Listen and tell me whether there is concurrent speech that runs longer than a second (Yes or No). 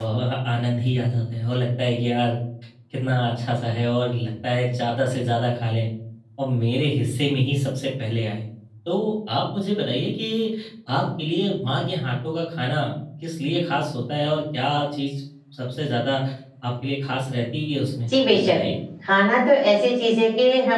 No